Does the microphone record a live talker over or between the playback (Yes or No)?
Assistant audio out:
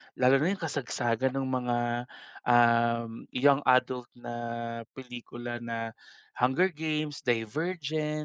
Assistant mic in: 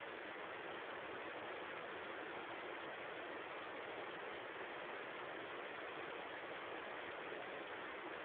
No